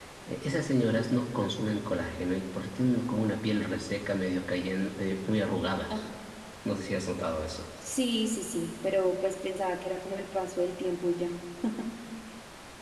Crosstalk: none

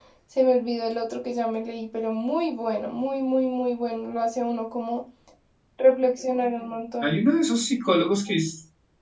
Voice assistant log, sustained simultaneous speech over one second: none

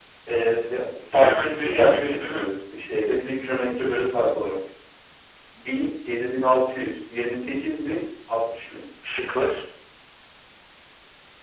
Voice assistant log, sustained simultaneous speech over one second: present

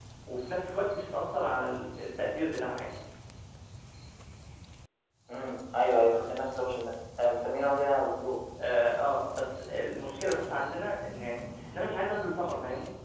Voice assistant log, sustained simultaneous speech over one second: none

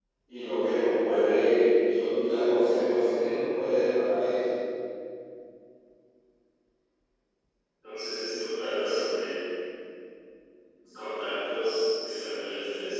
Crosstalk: none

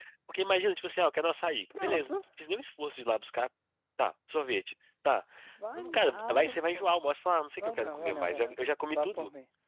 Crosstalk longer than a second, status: present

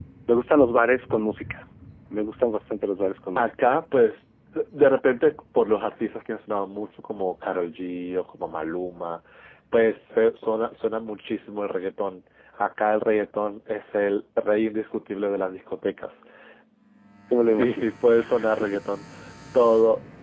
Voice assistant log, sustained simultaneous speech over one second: none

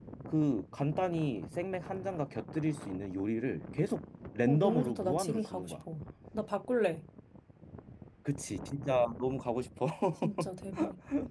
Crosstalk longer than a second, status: present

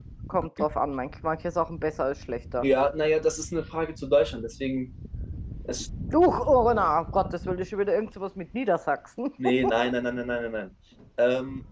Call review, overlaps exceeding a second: none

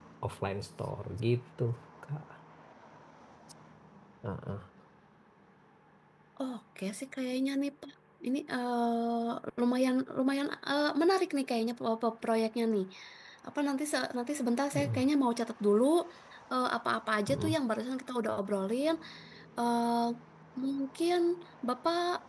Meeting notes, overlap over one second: none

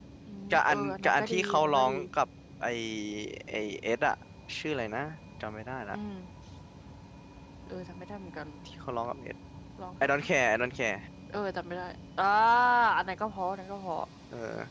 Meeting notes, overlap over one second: present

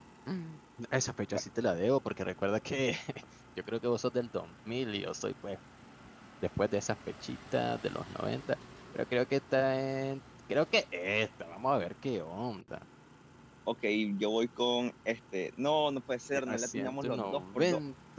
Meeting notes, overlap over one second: present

